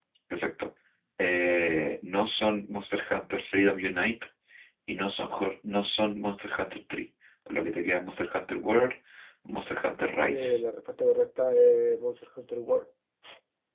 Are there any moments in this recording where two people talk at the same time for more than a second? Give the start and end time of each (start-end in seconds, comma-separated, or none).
none